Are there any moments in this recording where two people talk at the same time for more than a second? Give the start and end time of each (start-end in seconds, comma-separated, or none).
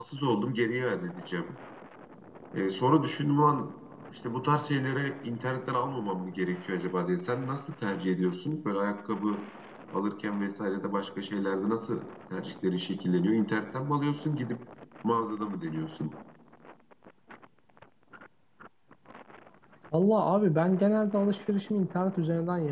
none